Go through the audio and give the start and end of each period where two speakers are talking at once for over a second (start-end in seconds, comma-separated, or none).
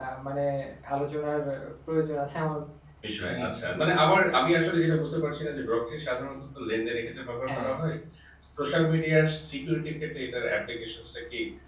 none